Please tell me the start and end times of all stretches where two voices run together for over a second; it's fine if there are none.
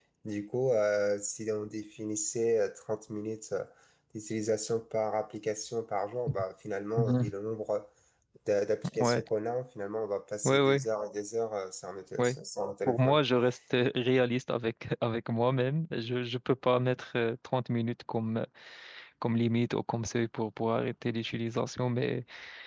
none

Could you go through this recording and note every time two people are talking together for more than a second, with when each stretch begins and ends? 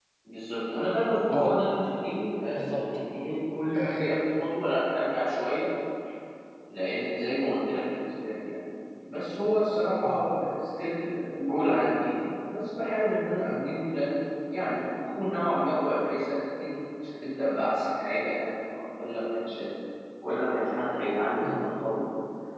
none

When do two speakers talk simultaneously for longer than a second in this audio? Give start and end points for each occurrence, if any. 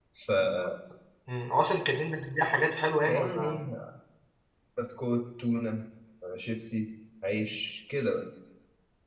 none

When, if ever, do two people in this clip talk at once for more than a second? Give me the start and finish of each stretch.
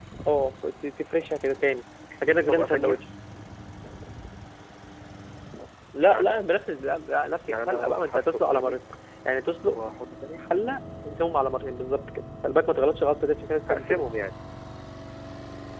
7.5-8.8

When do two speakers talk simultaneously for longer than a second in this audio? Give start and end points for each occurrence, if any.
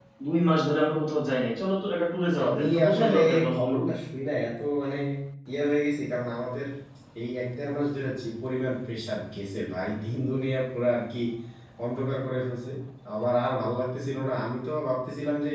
2.4-3.8

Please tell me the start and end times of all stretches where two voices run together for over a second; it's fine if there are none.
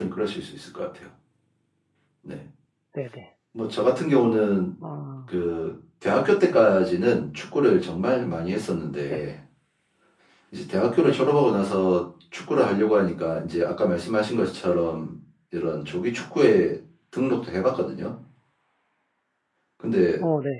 none

